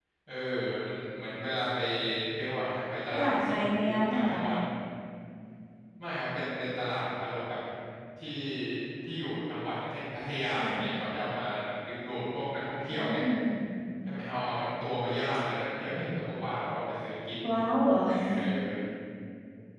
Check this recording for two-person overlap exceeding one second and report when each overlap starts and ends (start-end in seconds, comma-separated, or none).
3.1-4.4